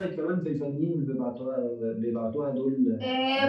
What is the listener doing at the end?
taking over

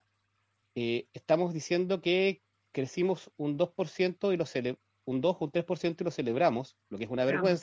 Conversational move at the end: listening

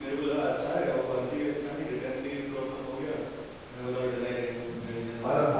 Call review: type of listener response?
taking over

